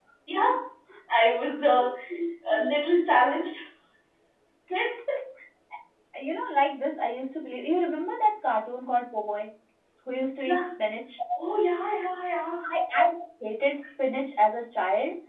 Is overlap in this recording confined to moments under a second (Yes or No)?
Yes